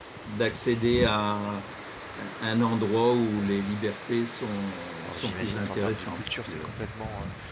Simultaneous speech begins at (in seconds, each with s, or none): 5.0 s